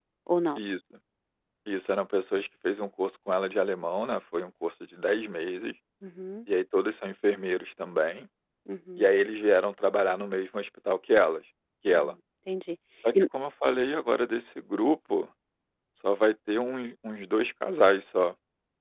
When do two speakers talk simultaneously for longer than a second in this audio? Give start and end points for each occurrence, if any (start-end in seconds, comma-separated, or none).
none